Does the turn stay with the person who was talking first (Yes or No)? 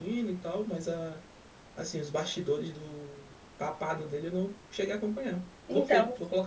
No